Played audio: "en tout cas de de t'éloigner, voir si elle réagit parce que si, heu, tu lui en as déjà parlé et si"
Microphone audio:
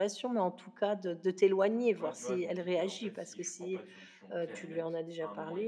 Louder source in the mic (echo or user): echo